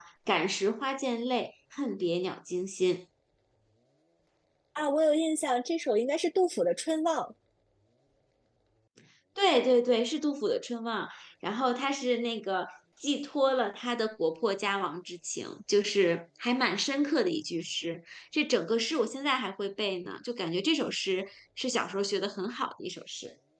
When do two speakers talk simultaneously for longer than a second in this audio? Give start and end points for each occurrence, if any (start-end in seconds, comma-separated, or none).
none